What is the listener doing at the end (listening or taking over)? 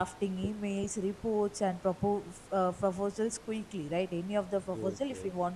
listening